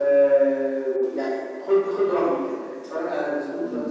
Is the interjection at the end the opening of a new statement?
Yes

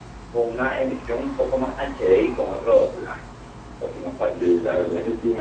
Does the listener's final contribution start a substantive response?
Yes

